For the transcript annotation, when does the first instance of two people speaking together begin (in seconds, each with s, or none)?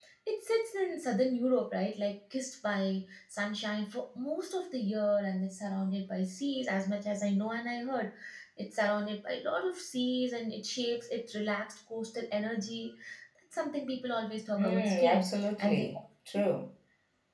14.6 s